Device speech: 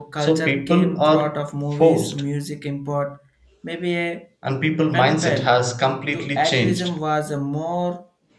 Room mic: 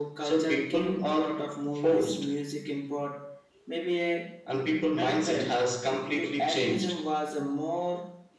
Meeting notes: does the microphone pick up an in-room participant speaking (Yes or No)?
No